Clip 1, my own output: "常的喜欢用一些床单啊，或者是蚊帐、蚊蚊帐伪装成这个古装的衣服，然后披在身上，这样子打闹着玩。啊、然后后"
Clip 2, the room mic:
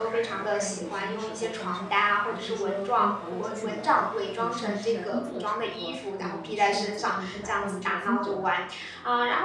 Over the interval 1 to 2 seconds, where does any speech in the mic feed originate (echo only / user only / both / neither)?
both